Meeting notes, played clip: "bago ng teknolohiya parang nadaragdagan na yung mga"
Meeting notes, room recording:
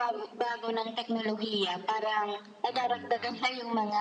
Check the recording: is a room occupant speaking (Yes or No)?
Yes